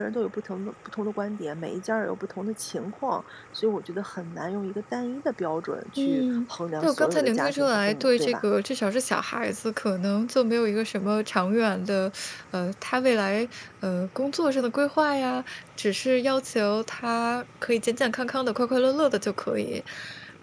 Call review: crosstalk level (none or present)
present